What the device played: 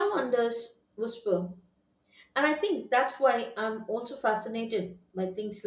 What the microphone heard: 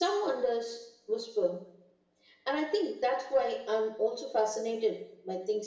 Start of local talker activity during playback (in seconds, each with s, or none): none